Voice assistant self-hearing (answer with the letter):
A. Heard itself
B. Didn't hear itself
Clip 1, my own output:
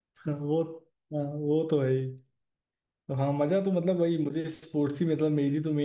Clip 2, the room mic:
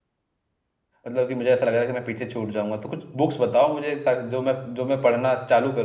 B